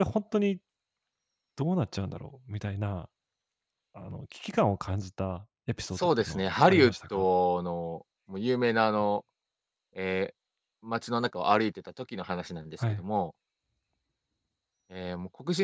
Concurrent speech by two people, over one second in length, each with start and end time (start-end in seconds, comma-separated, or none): 6.0-7.2